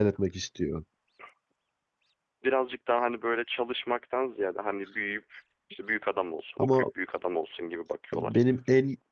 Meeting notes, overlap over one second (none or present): none